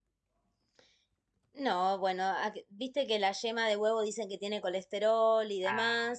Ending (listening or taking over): taking over